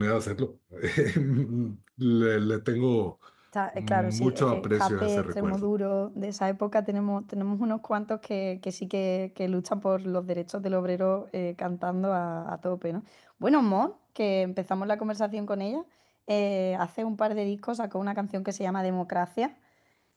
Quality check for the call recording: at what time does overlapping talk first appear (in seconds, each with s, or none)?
3.8 s